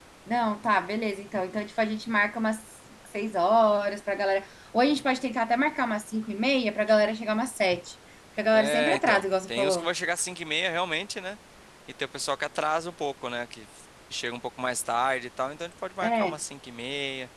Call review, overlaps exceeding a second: present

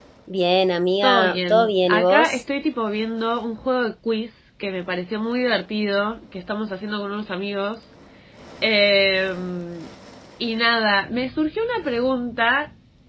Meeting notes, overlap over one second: present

